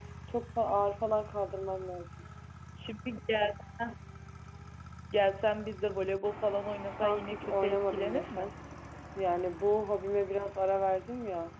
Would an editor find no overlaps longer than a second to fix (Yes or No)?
No